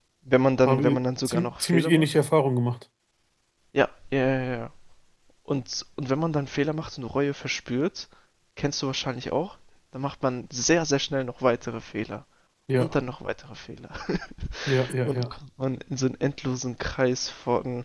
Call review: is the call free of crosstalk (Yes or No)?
No